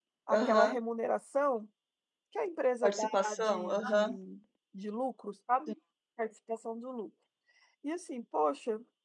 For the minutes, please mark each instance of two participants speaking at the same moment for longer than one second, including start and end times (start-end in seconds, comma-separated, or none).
2.8-4.2